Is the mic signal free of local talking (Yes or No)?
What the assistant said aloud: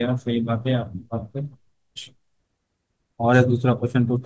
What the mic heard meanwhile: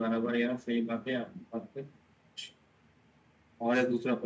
Yes